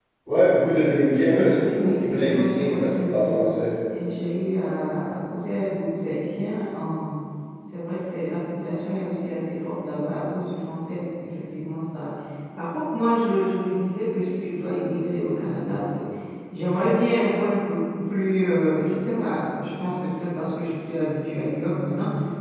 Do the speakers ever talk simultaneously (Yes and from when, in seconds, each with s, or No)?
Yes, from 1.8 s